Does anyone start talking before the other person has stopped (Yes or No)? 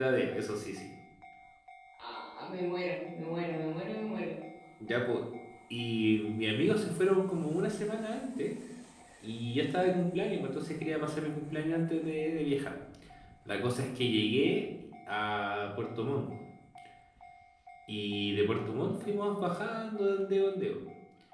No